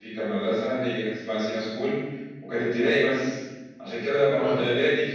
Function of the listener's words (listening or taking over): listening